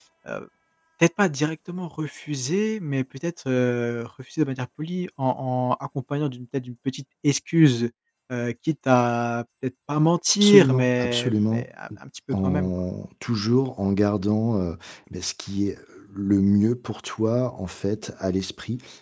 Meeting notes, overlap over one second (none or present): present